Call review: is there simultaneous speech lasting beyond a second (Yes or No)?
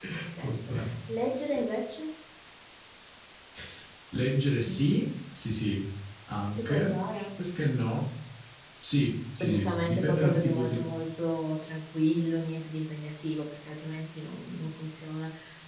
Yes